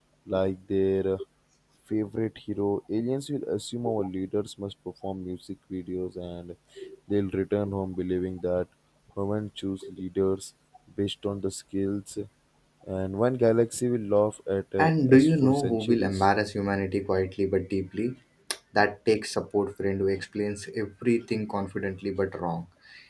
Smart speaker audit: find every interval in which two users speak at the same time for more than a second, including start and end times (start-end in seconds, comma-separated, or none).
14.8-16.3